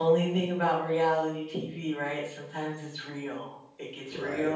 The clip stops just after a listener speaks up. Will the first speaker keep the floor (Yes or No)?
Yes